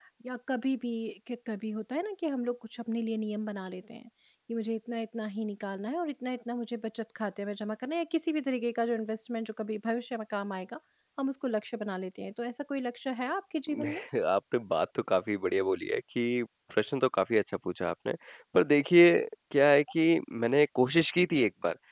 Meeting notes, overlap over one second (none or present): none